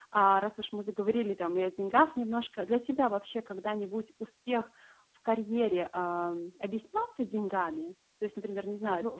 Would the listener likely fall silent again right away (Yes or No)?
No